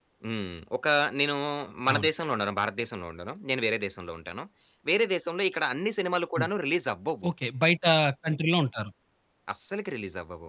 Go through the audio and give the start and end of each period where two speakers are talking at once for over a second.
none

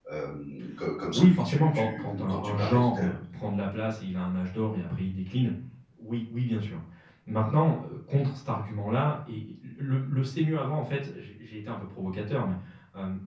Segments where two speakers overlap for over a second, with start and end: 1.1-3.1

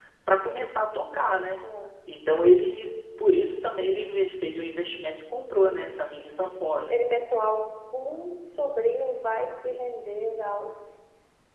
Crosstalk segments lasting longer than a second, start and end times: none

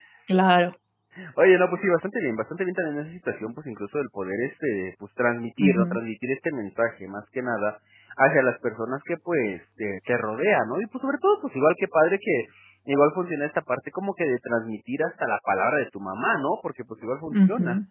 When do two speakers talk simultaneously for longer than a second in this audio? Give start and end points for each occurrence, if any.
none

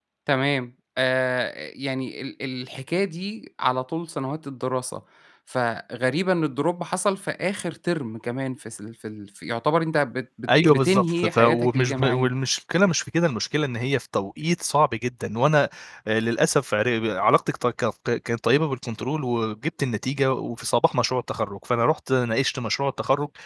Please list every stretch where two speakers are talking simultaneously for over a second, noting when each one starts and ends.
10.5-12.3

